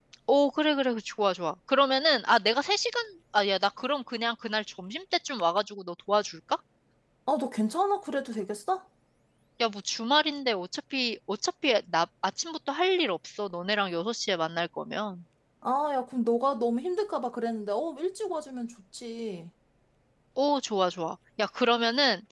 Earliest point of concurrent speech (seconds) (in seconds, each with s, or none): none